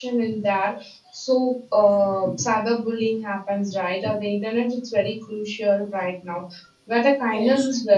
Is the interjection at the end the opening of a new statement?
No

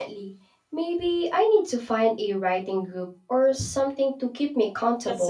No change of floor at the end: No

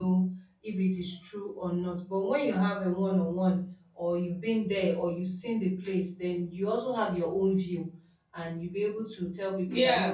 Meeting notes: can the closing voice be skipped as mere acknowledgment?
Yes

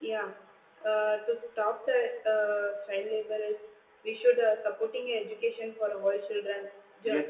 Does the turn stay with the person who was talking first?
No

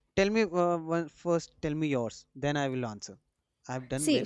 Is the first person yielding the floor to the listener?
Yes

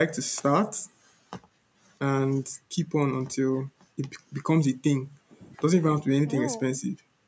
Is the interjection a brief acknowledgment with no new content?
Yes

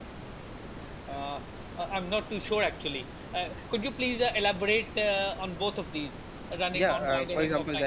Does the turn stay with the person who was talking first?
No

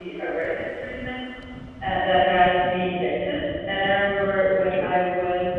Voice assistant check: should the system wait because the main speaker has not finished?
Yes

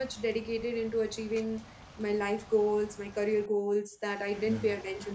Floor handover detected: No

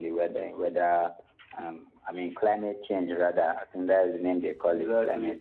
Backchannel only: No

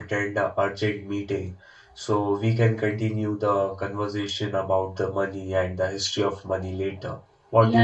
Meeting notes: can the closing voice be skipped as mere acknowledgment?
No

